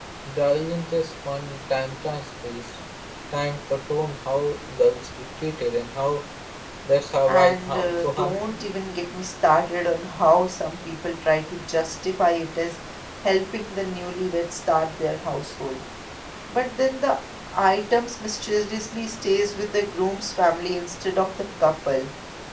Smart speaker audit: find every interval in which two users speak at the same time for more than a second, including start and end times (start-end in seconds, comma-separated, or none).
7.3-8.6